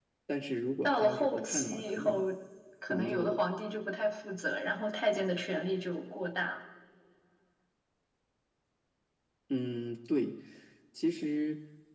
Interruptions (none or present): present